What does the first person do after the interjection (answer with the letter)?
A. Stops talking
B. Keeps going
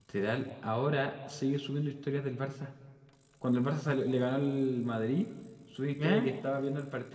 B